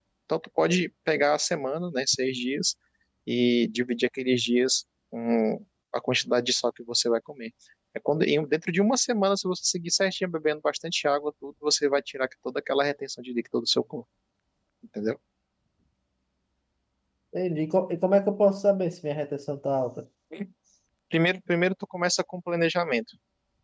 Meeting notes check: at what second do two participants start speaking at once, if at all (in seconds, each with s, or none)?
none